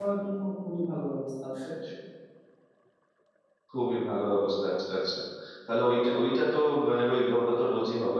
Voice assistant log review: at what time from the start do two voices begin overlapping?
none

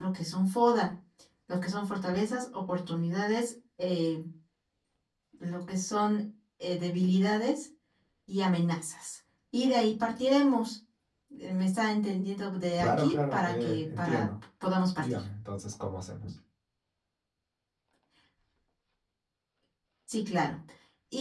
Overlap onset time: 13 s

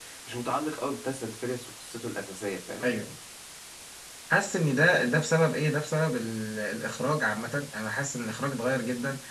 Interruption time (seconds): none

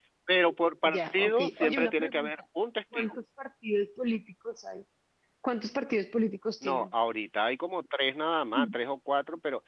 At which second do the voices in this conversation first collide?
1 s

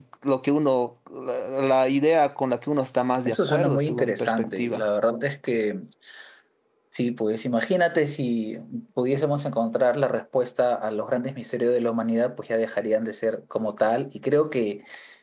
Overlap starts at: 3 s

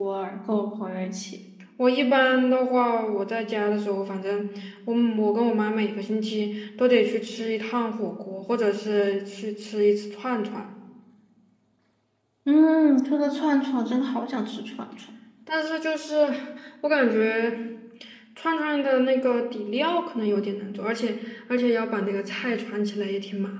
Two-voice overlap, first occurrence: none

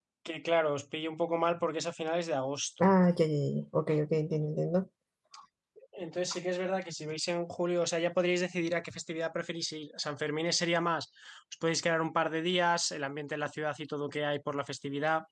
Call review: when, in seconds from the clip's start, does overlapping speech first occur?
none

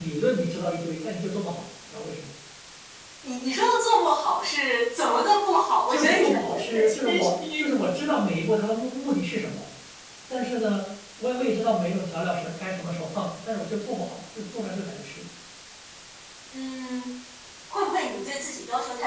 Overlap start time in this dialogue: 6 s

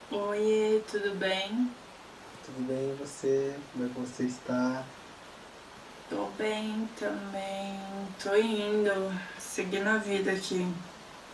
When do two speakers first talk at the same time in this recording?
none

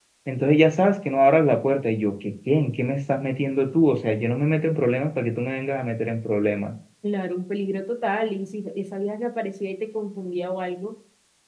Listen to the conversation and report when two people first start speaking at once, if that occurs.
none

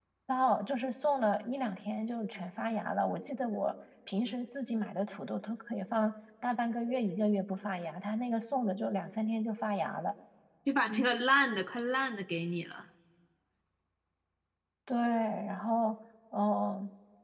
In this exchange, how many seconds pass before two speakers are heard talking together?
none

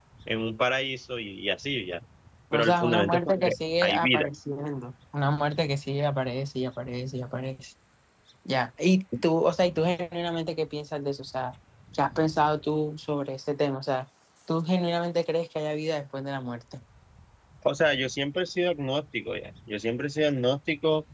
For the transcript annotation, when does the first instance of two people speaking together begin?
3 s

